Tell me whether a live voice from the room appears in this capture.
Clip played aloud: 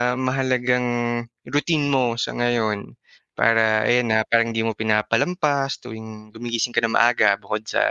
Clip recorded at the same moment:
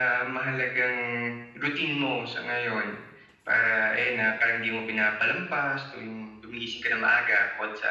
No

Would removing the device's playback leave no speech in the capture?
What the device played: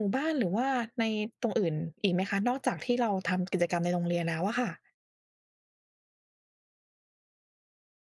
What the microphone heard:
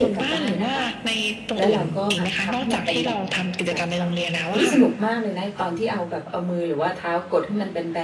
No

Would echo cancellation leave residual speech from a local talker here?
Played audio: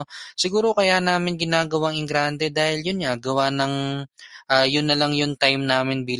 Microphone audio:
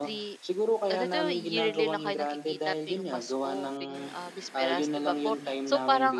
Yes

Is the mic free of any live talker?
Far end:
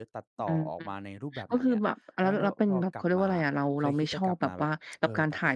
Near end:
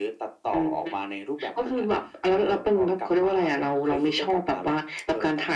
Yes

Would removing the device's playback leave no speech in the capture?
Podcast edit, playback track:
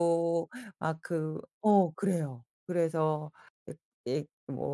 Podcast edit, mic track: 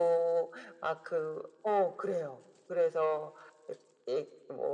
Yes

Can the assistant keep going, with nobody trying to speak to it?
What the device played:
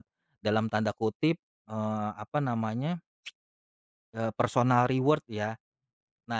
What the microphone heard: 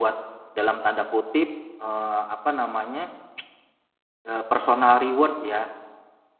Yes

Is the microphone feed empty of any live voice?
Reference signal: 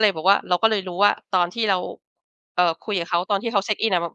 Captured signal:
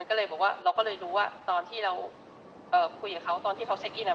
Yes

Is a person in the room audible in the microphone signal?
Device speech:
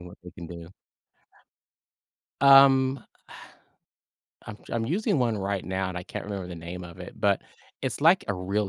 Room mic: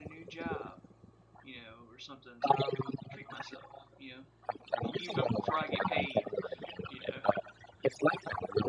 Yes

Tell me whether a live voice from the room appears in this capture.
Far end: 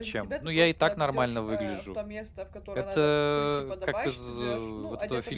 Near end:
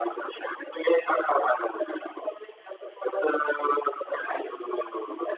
No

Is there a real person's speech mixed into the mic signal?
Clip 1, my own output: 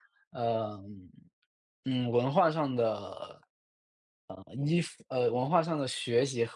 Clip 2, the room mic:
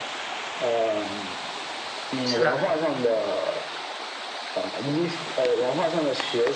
Yes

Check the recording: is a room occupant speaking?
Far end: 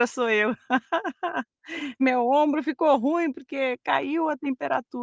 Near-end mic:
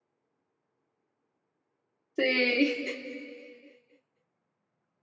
Yes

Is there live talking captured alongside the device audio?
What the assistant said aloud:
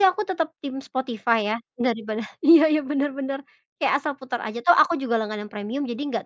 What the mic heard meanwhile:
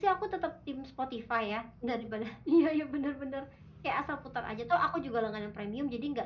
No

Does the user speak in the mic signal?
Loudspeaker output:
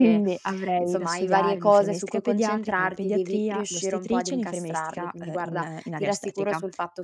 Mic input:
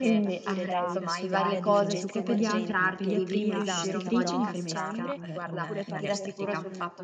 Yes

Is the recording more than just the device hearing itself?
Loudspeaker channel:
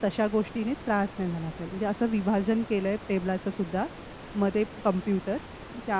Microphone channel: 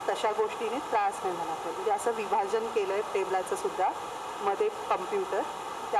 No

